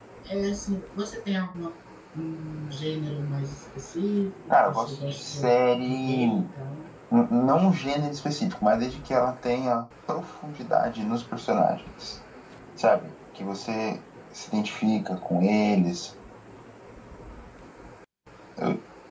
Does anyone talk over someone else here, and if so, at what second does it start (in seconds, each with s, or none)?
4.5 s